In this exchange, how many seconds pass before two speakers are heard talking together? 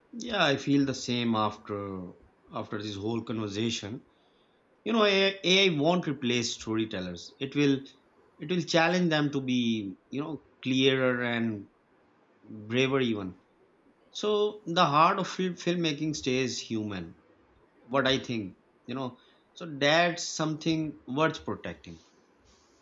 none

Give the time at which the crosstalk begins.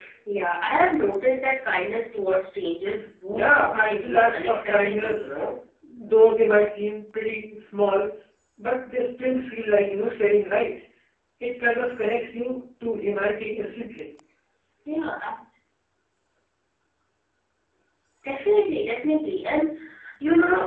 3.3 s

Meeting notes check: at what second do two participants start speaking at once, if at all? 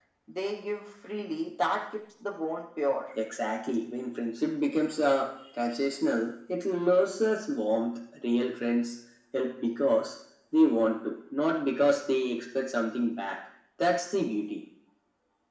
none

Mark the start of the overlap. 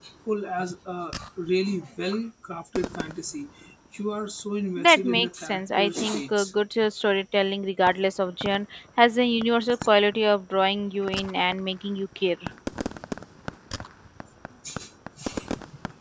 4.8 s

